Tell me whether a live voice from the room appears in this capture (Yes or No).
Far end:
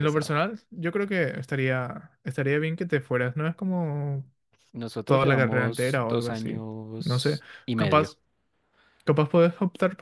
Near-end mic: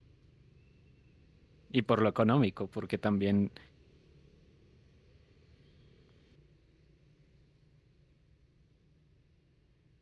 Yes